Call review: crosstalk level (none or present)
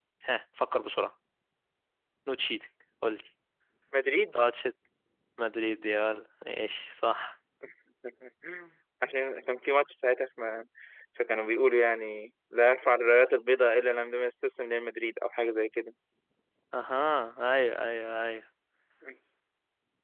none